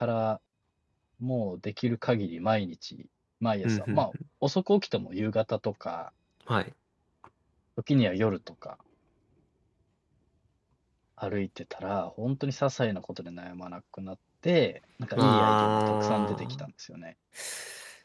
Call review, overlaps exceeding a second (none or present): present